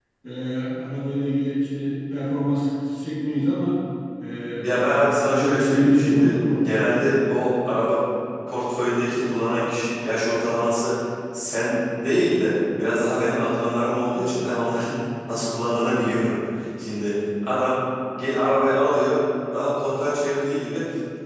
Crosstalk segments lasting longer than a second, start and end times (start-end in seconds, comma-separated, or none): 5.3-7.1